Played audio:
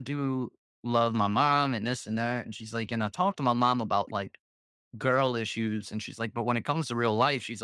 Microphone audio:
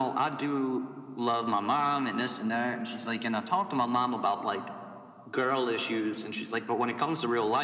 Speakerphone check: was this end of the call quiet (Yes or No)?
Yes